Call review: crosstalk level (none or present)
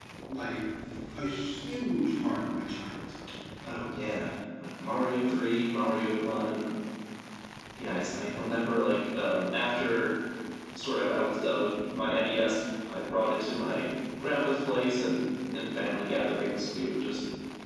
none